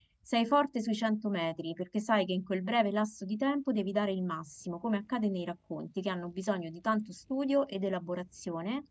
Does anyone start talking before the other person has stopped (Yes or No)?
No